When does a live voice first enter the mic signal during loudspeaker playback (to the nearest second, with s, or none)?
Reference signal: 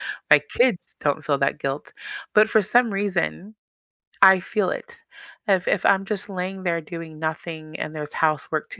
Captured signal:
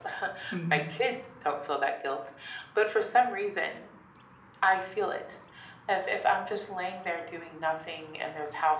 1 s